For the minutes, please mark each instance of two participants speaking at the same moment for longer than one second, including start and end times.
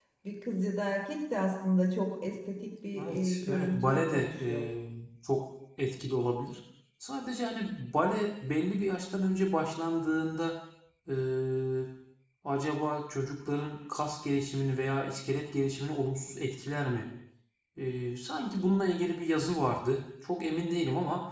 3.0-4.5

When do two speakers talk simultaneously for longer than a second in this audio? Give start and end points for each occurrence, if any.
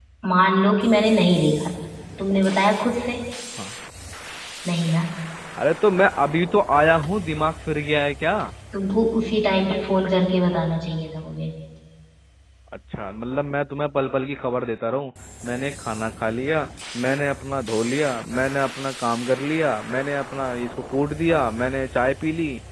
none

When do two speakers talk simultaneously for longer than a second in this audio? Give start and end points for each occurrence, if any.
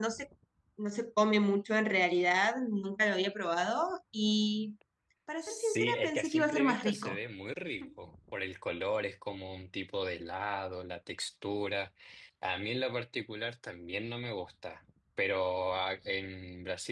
5.4-7.2

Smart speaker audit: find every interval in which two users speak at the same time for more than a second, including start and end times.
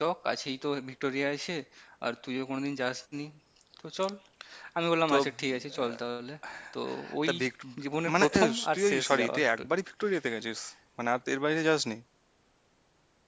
8.1-9.7

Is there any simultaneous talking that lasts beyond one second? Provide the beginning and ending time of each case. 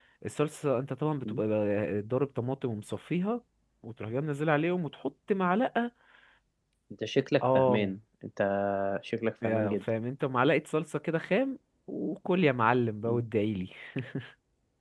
none

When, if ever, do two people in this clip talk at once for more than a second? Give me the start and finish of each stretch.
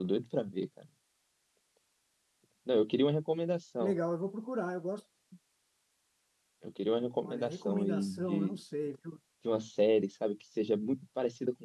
7.2-8.5

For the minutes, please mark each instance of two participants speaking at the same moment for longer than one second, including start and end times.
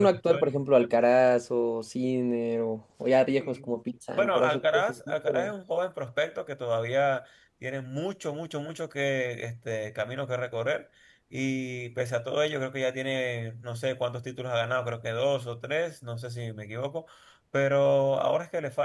4.1-5.5

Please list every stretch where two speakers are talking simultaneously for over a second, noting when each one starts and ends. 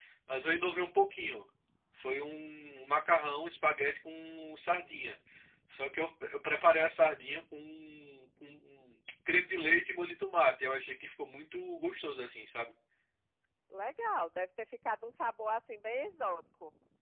none

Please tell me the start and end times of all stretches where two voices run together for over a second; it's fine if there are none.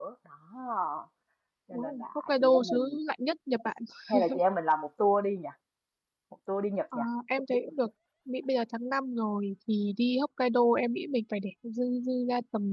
1.7-2.9

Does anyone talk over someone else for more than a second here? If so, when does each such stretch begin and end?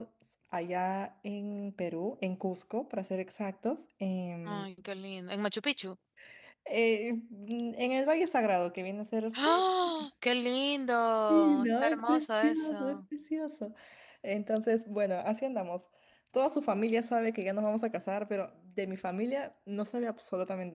11.3-13.0

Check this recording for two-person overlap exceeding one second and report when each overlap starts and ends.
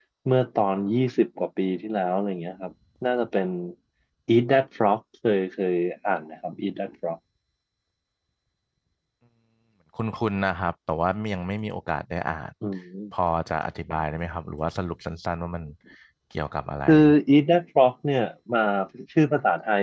none

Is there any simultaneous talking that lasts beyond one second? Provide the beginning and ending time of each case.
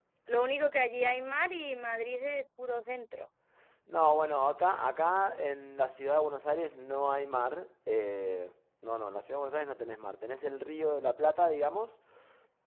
none

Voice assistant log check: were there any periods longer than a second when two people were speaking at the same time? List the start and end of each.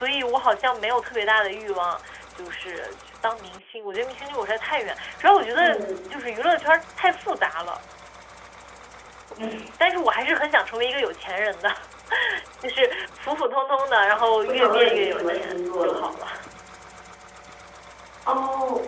14.5-16.0

